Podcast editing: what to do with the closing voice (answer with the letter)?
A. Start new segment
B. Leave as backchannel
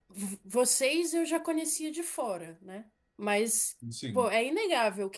B